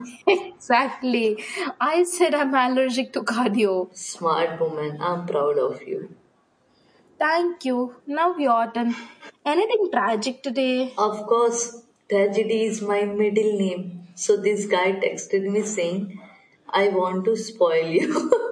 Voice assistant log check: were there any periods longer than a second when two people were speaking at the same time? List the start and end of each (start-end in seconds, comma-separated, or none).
none